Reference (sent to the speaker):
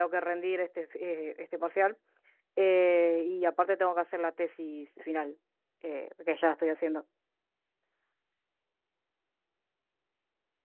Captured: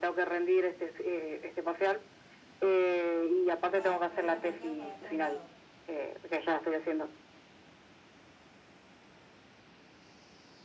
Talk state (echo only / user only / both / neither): both